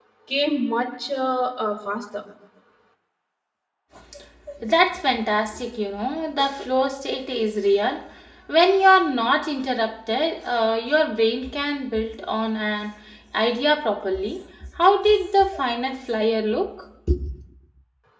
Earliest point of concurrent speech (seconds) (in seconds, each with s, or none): none